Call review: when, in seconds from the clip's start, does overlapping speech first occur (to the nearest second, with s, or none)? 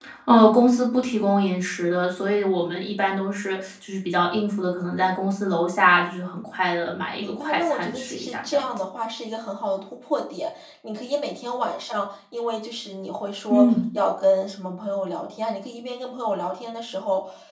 7 s